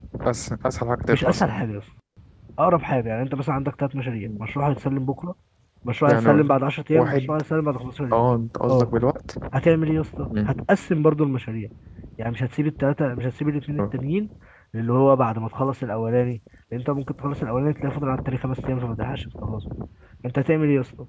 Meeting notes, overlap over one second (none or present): none